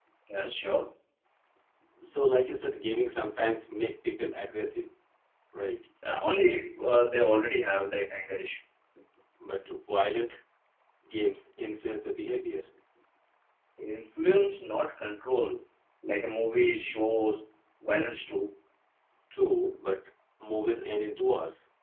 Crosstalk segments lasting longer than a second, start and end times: none

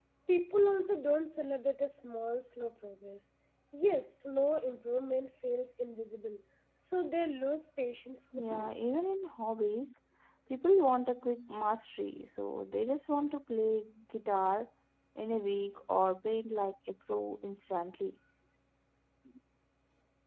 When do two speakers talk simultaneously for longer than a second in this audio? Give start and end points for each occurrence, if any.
none

